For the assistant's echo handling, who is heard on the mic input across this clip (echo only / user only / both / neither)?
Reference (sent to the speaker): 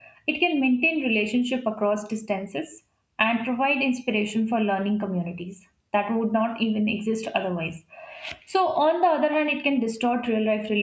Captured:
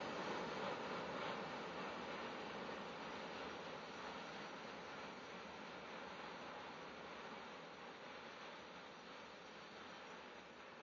neither